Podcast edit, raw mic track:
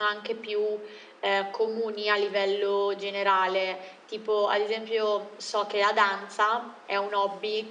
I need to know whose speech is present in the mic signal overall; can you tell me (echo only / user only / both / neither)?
user only